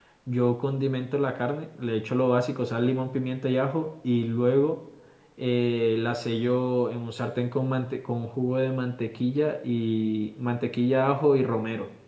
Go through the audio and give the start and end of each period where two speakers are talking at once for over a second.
none

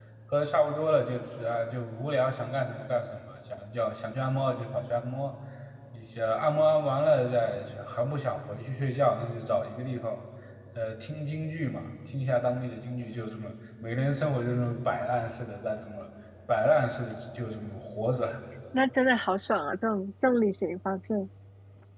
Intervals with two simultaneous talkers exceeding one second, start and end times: none

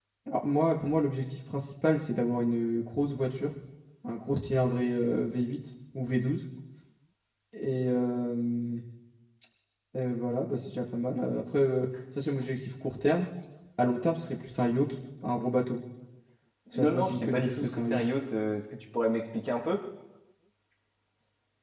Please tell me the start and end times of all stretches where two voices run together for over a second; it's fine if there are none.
16.8-18.0

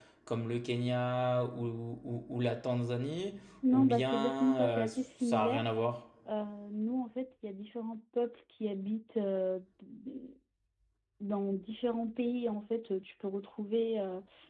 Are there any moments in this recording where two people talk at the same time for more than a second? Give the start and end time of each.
3.7-5.6

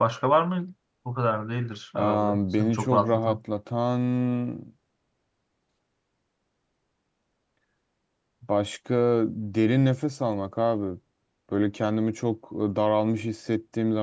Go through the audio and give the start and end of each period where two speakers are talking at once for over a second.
2.0-3.4

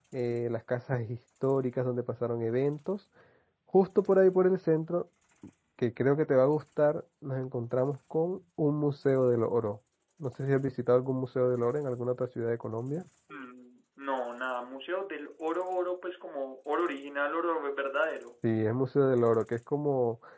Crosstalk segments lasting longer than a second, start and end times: none

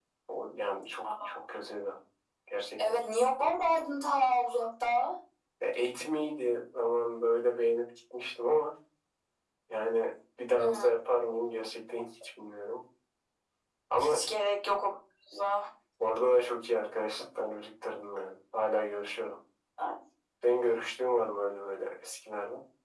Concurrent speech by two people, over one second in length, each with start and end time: none

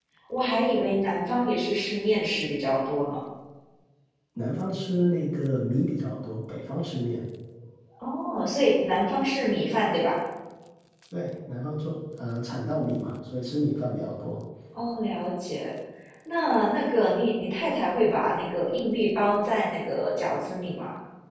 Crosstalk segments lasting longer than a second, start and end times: none

